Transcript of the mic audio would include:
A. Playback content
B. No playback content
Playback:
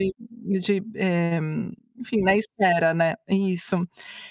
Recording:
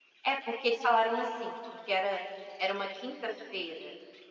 B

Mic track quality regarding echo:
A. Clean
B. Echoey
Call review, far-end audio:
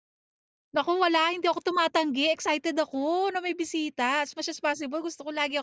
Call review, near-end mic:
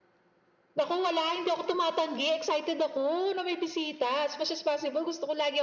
B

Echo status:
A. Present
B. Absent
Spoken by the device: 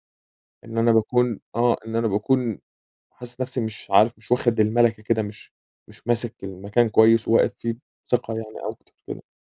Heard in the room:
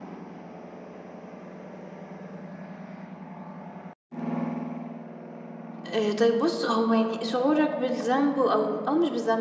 B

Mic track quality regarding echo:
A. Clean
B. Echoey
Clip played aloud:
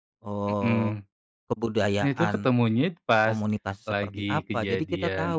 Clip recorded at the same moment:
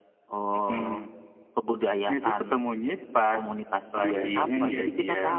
B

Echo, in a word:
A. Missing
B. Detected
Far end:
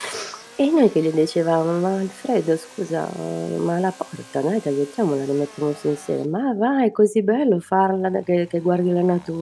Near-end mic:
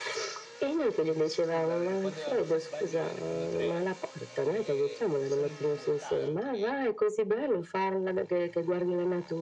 B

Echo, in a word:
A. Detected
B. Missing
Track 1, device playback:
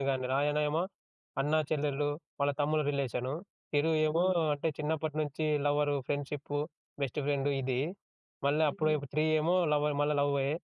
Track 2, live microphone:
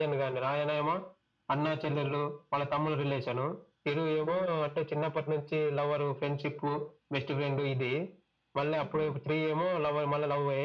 A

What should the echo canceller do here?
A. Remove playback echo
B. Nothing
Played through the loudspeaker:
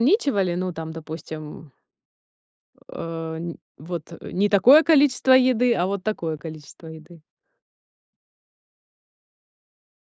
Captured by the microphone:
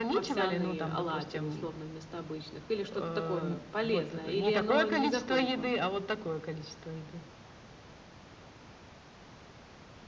A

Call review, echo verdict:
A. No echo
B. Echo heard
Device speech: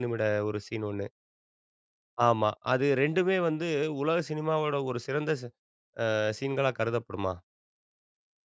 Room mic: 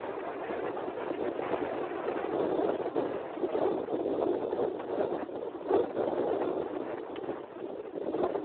A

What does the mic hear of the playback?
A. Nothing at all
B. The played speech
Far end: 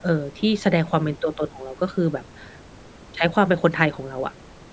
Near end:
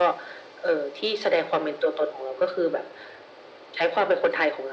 B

